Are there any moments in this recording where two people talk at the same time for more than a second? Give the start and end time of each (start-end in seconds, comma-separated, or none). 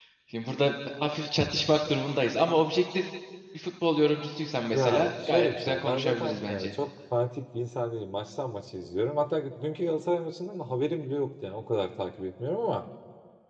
4.7-6.7